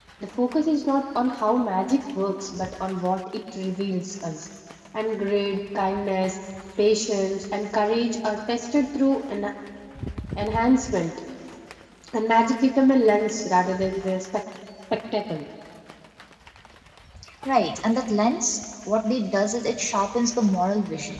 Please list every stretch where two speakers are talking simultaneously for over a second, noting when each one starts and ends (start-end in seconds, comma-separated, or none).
none